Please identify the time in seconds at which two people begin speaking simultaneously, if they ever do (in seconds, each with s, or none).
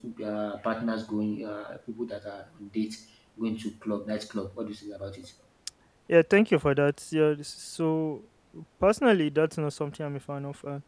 none